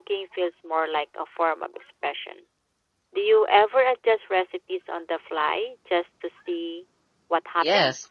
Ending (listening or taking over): taking over